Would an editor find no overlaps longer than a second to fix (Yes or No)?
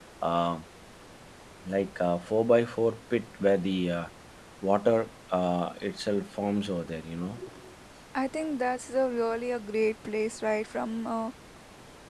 Yes